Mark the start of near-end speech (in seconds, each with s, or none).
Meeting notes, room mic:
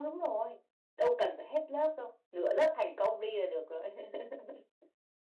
none